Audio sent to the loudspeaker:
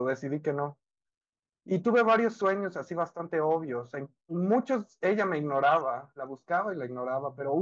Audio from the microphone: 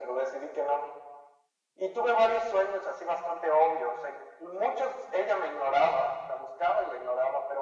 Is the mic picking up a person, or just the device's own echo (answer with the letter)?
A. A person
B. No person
B